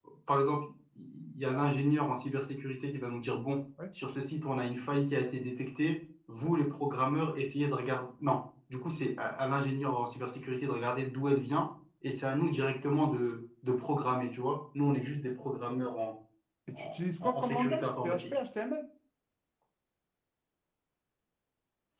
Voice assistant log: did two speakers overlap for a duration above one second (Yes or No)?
Yes